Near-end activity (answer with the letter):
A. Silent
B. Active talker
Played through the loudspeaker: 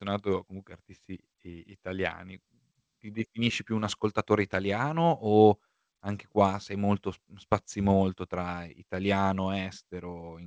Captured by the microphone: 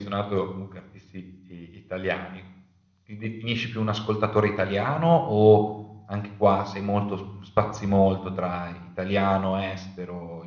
A